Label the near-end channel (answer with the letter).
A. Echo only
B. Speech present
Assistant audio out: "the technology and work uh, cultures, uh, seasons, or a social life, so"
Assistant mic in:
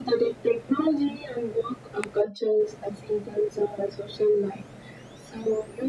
A